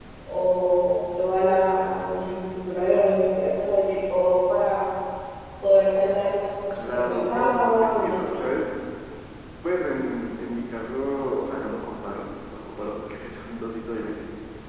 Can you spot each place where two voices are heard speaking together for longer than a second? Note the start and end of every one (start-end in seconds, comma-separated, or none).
6.7-8.4